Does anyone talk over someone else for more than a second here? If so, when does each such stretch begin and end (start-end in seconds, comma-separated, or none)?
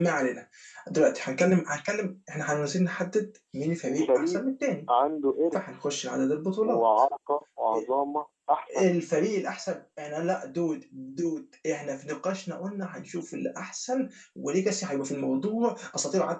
none